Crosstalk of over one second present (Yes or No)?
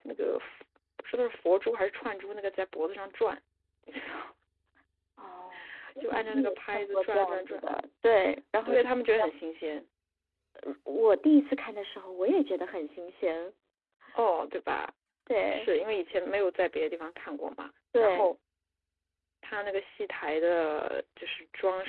Yes